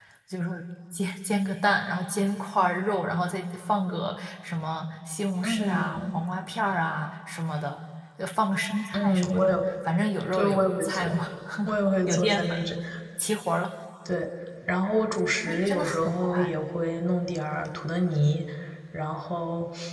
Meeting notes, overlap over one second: present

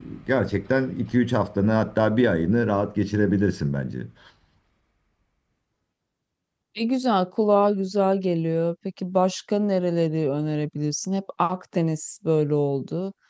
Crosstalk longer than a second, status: none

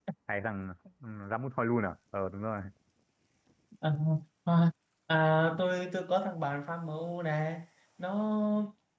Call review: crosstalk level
none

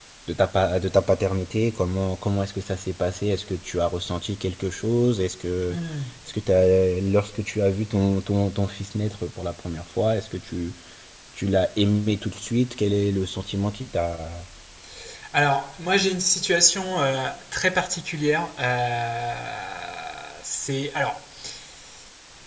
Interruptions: none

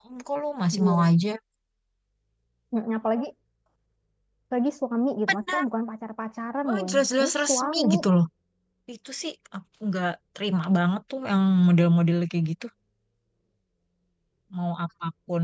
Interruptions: present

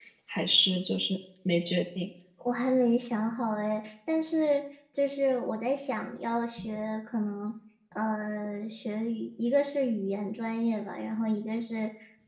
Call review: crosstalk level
none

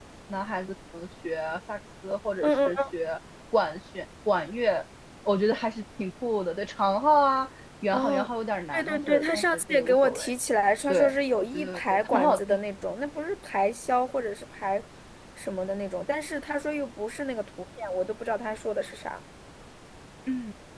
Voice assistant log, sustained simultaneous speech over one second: present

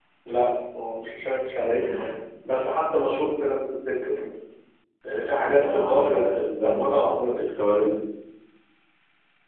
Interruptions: present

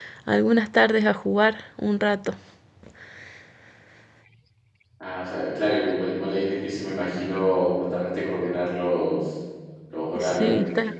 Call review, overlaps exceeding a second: none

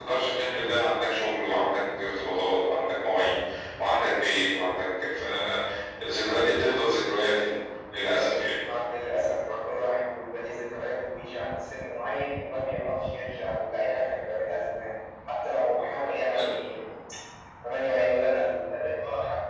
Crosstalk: none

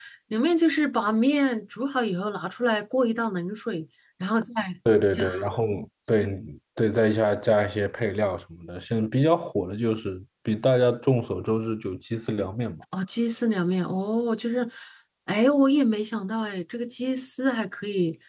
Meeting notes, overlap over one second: none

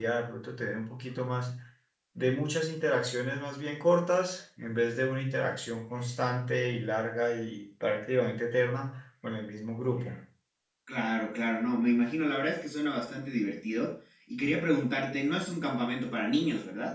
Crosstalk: none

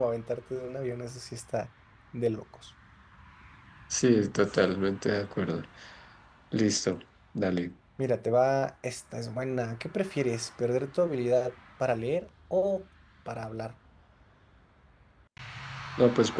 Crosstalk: none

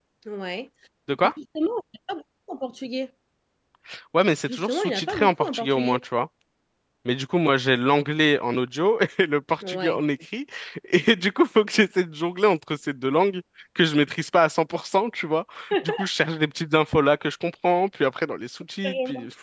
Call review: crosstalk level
present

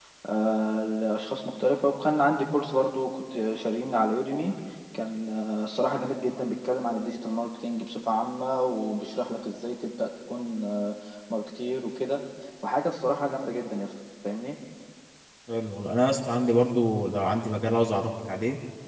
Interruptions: none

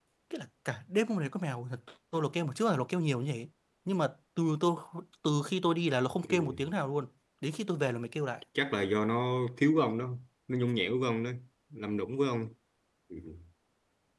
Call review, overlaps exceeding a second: none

